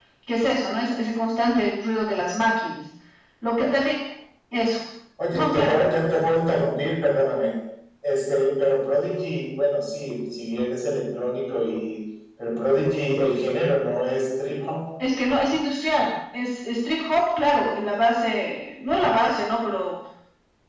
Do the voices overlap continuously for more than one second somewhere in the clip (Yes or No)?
No